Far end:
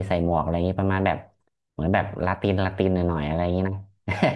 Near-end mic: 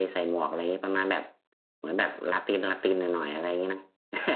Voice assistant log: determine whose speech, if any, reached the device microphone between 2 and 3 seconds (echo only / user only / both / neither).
echo only